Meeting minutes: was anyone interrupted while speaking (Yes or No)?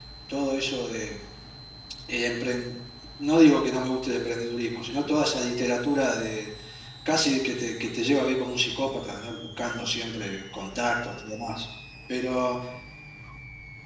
No